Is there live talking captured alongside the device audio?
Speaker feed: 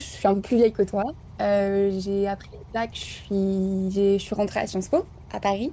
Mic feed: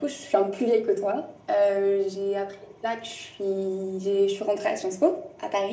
No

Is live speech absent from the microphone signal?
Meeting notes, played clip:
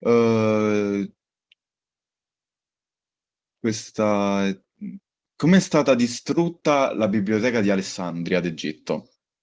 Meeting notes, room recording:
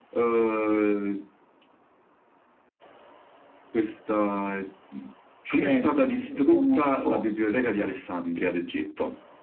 No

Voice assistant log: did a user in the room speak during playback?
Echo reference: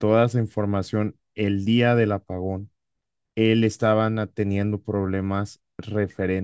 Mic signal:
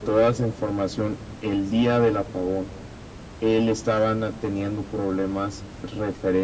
No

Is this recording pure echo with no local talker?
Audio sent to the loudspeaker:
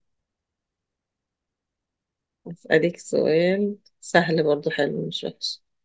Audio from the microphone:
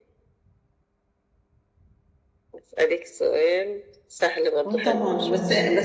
No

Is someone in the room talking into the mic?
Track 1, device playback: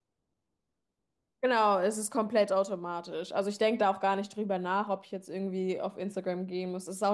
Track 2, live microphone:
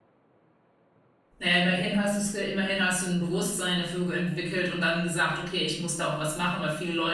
Yes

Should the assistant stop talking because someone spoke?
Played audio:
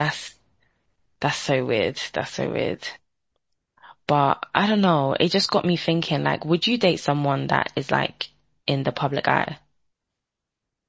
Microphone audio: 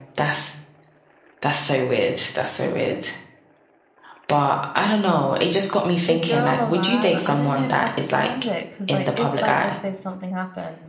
Yes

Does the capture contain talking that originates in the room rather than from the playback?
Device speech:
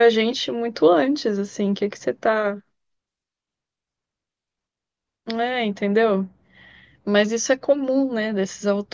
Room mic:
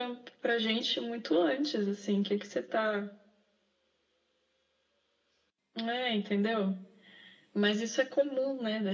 No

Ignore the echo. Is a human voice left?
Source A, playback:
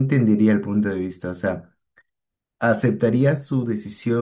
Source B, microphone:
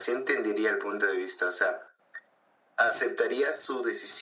No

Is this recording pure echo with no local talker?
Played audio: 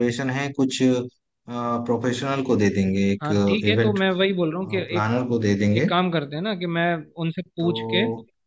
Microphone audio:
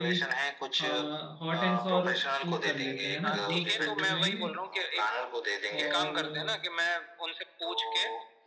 No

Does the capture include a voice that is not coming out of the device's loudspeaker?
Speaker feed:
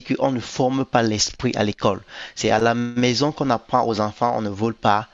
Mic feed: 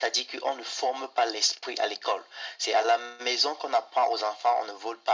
No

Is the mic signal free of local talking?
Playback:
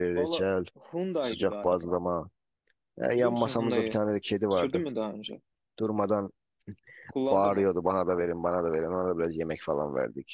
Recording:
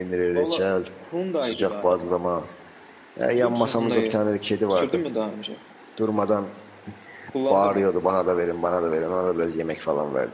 Yes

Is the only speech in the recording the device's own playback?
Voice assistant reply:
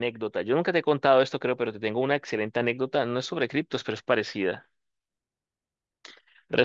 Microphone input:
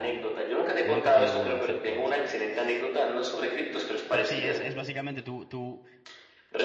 No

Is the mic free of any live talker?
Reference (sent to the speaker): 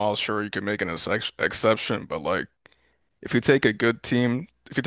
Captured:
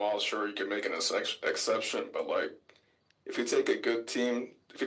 Yes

